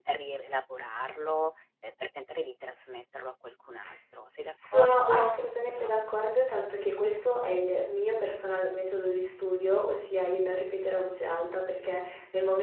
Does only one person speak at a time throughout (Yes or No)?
No